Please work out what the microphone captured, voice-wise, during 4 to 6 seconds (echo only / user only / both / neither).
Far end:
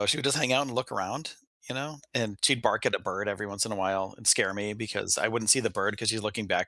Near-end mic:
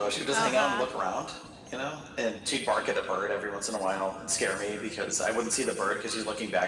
echo only